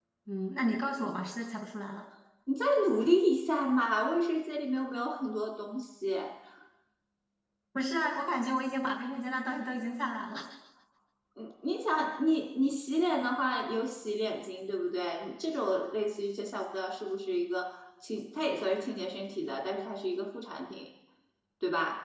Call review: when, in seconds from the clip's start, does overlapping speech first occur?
none

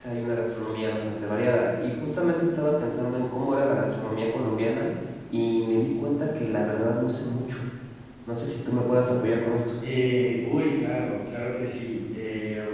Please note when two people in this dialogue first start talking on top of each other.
none

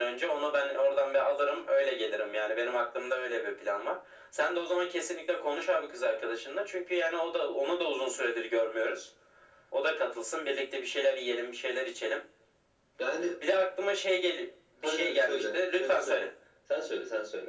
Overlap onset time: 14.8 s

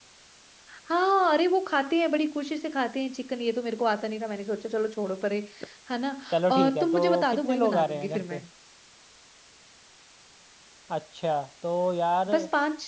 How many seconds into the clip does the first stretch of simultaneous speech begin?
6.3 s

